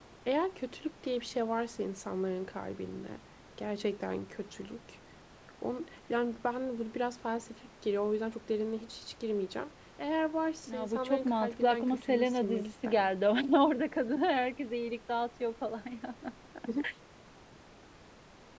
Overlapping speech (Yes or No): Yes